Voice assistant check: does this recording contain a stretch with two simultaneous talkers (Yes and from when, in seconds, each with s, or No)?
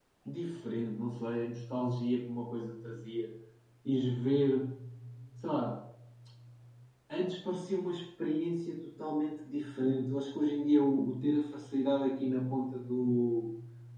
No